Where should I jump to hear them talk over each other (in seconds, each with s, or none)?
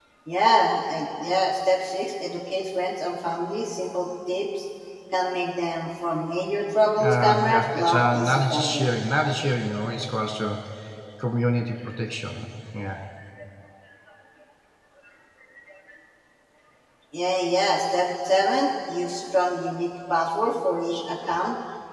7.0 s